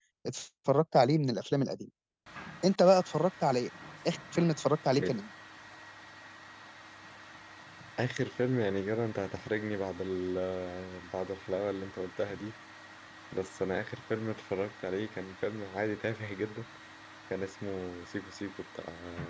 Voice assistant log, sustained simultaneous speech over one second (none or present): none